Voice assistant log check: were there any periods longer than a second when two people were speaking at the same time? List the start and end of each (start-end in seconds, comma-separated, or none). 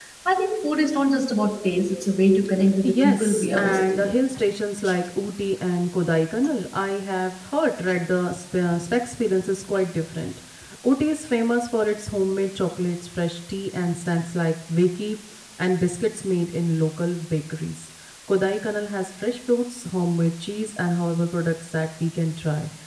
2.8-4.1